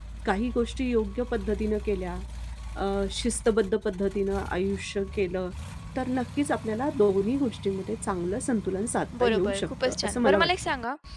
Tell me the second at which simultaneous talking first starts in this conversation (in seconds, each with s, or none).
9.1 s